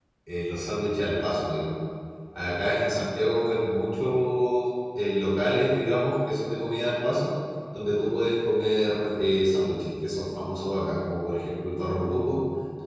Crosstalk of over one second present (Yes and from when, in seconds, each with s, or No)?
No